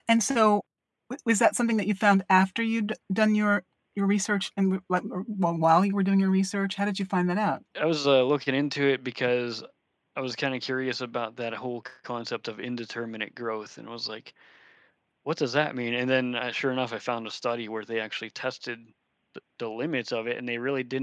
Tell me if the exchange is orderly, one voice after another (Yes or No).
Yes